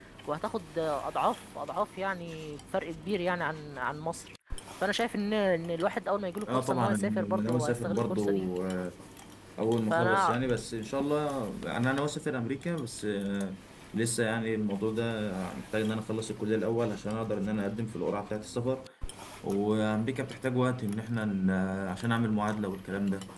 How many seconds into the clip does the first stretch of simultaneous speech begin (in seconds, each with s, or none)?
6.5 s